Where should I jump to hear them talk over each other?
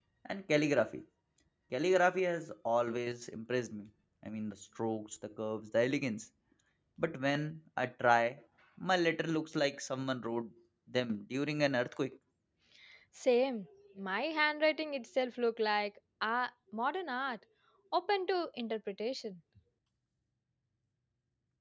none

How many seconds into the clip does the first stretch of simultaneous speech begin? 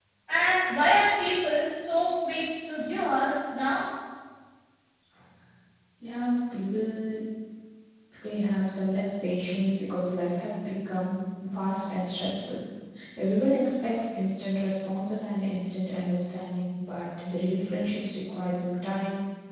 none

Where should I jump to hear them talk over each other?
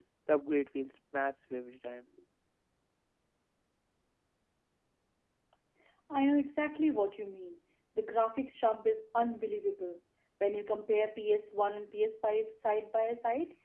none

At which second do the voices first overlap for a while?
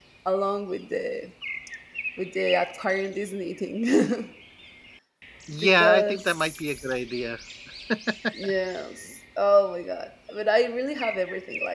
5.6 s

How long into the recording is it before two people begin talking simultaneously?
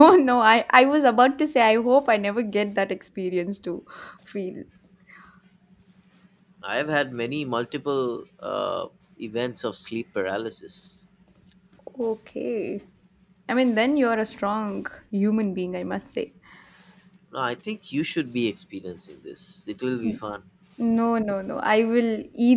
none

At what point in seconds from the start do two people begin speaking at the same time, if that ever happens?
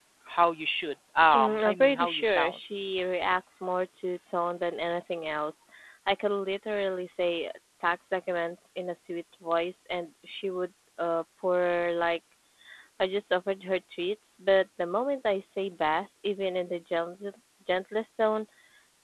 1.3 s

